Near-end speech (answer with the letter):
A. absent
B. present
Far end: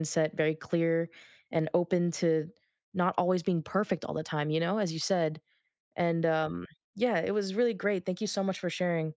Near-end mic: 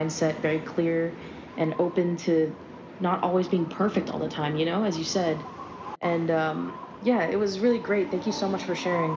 A